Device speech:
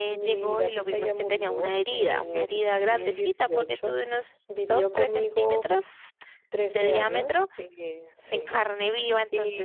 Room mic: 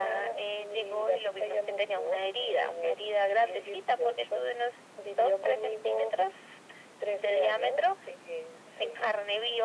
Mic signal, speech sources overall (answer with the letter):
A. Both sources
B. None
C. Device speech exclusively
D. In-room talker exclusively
C